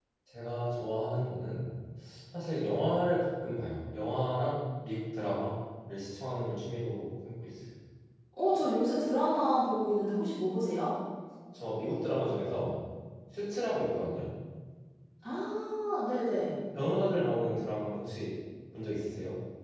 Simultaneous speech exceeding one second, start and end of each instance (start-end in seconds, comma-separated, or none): none